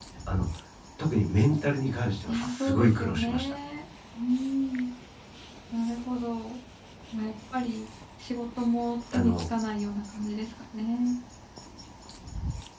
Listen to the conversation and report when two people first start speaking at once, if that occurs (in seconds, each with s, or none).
2.3 s